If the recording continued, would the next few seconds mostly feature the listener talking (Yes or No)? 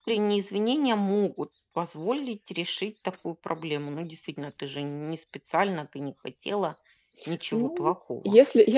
Yes